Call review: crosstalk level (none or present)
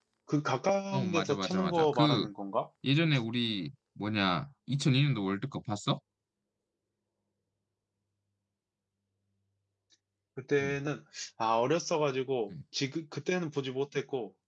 present